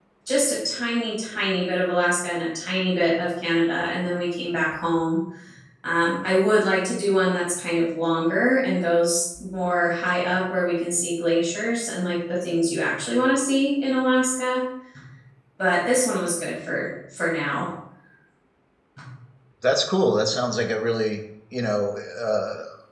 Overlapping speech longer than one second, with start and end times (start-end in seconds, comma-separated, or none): none